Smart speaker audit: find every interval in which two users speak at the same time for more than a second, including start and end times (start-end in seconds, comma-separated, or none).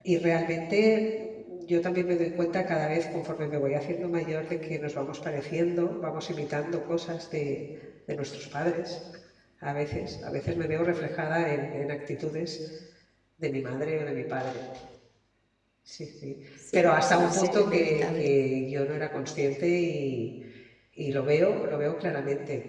16.7-18.4